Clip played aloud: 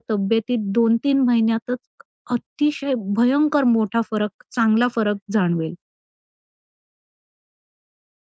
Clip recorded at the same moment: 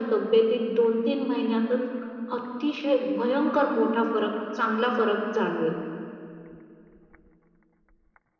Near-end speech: none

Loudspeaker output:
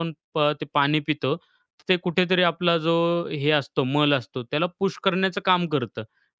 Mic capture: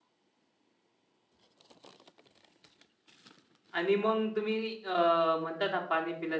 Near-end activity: present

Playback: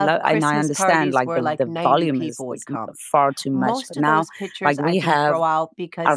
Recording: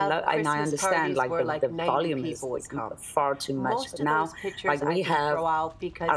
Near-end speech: none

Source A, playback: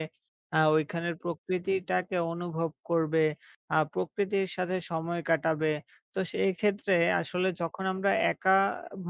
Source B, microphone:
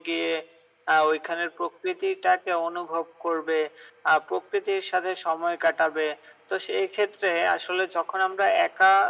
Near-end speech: none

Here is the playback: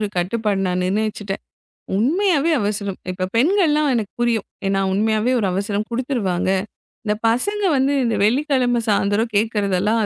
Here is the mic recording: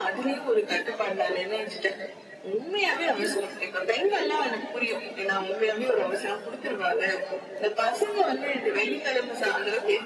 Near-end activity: none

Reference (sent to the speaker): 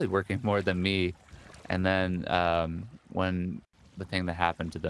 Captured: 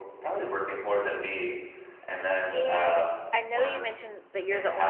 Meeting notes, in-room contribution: present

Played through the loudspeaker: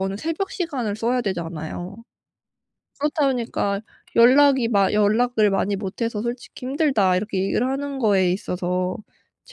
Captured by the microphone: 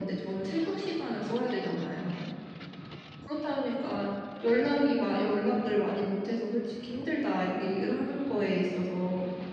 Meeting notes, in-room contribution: none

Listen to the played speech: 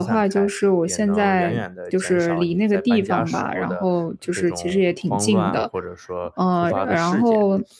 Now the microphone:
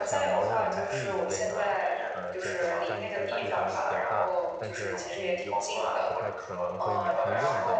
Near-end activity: present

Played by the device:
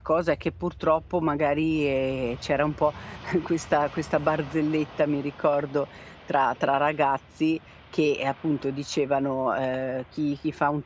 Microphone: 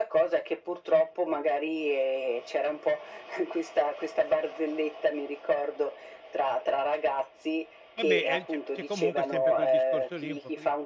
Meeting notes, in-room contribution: present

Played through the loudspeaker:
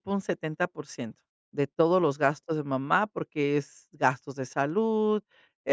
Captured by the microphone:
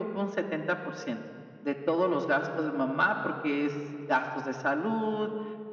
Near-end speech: none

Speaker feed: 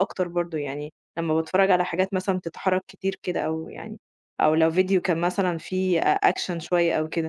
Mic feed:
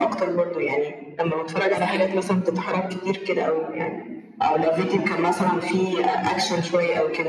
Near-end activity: present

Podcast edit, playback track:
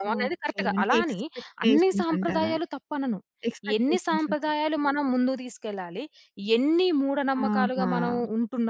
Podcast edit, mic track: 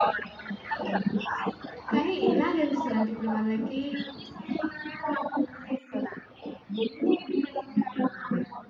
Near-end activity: present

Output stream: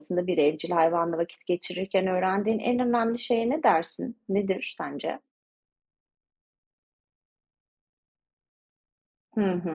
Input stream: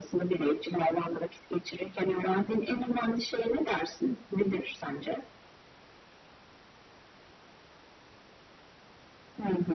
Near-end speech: none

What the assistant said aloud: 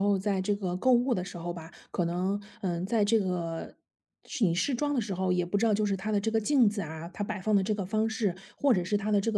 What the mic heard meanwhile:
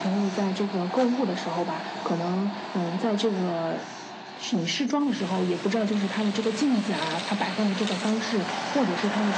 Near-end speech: none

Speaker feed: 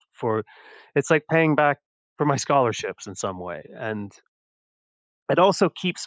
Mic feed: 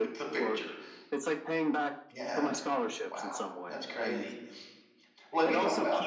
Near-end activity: present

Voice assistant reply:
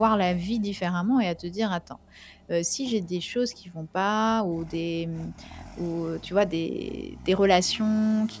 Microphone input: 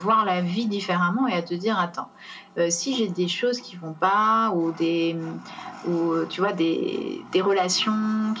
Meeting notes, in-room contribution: none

